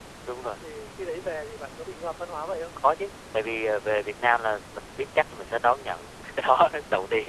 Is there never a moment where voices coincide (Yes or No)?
Yes